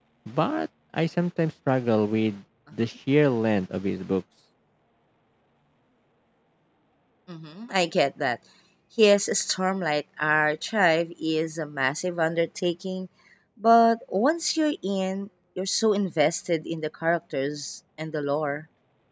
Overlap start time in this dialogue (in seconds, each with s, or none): none